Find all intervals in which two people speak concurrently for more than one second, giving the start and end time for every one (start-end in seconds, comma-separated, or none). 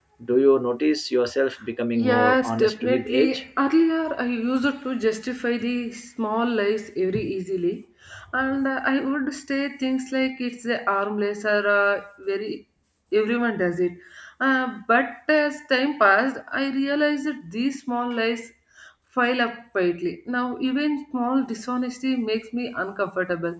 1.9-3.4